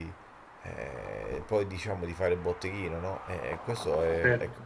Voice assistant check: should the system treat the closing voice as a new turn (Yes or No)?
No